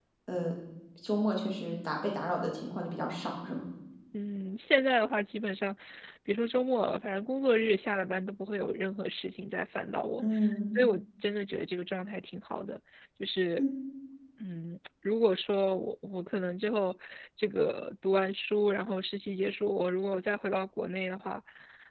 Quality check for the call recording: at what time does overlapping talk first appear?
none

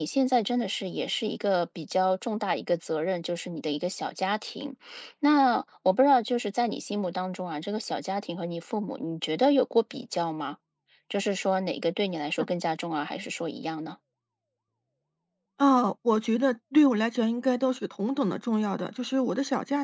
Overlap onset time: none

